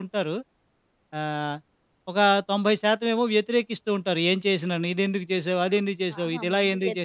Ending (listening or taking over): taking over